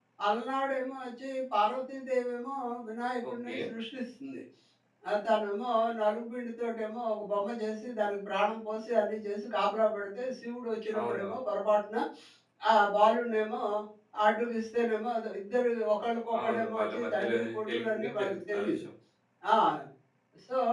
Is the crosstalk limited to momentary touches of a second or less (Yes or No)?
No